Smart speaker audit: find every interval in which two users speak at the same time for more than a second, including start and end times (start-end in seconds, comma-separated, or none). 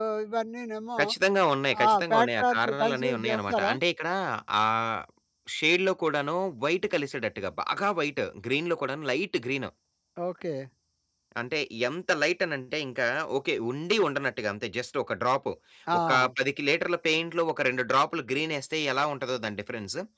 1.9-3.7